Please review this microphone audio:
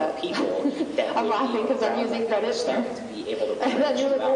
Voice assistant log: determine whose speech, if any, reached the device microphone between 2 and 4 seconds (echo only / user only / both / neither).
echo only